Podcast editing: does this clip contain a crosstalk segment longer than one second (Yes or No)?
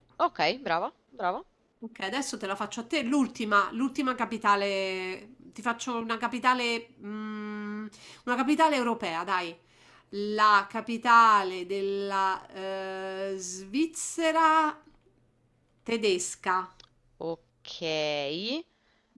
No